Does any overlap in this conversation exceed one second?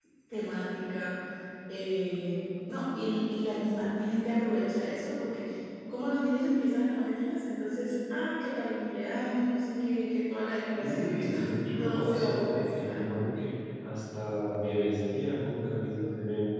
Yes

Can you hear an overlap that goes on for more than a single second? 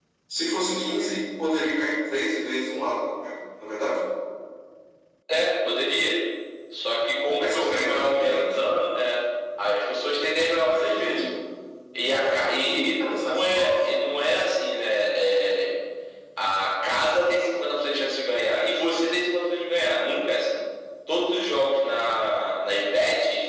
Yes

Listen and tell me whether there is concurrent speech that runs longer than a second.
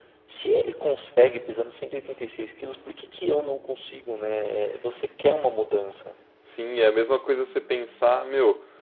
No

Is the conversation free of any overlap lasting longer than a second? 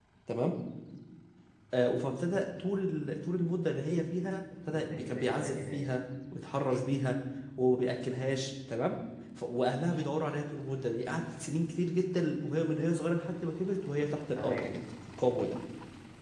No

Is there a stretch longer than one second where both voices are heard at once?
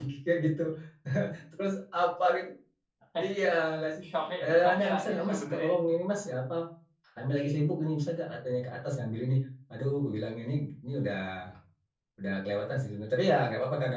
Yes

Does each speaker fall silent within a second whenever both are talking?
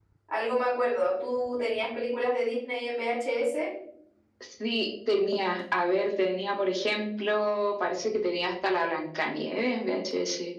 Yes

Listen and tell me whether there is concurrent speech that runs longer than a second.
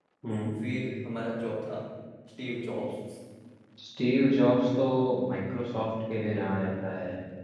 No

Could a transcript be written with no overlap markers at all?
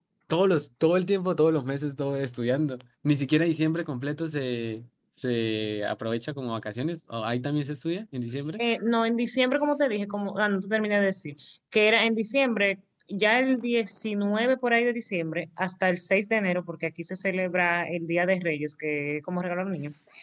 Yes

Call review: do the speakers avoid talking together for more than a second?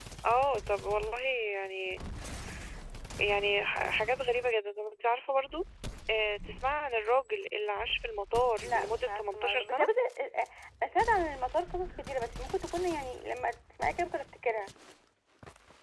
No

